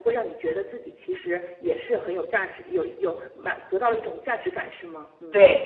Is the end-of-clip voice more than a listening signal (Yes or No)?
Yes